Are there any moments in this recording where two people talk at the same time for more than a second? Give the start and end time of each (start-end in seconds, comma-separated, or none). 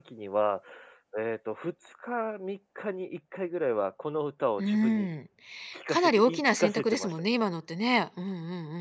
5.9-7.1